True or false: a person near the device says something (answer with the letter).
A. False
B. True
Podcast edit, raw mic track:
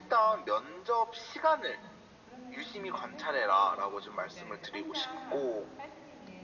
B